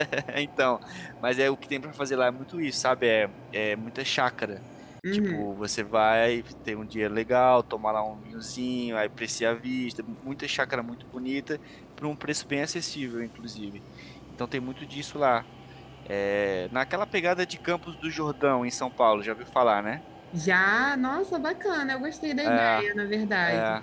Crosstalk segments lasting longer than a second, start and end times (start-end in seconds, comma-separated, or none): none